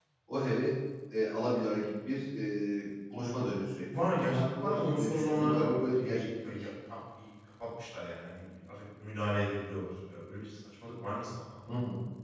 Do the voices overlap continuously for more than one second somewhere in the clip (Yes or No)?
Yes